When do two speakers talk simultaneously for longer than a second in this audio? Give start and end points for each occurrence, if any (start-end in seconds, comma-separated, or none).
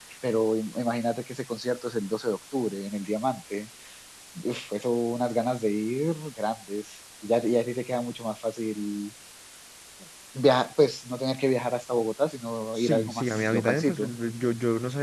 12.7-14.0